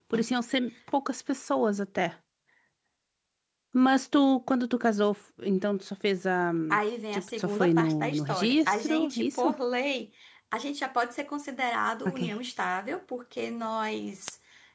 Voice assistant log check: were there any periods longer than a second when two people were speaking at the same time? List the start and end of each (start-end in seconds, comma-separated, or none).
7.1-9.6